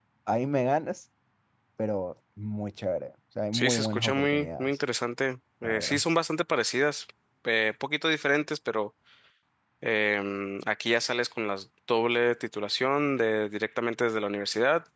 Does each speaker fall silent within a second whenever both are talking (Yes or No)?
No